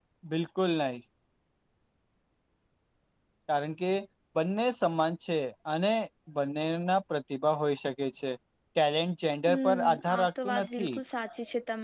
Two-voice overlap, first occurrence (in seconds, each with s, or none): 9.5 s